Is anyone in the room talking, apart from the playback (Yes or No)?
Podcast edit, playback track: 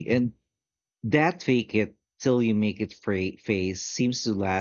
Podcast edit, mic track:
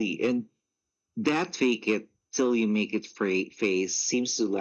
No